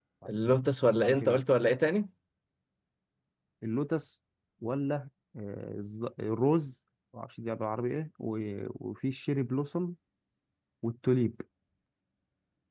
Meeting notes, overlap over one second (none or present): none